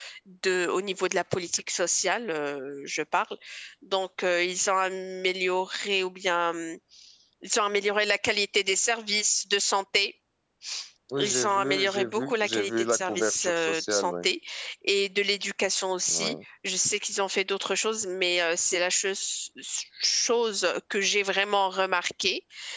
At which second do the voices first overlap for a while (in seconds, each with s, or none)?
11.2 s